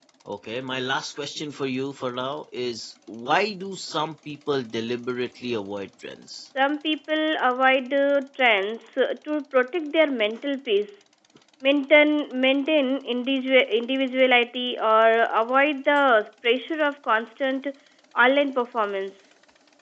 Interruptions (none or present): none